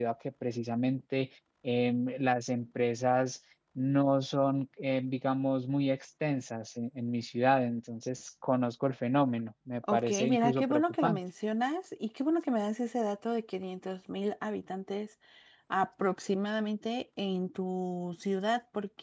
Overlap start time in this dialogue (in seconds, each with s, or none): 9.8 s